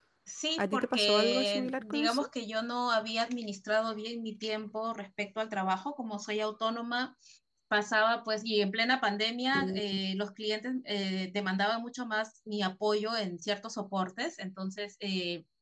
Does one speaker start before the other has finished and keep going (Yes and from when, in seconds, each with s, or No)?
Yes, from 0.6 s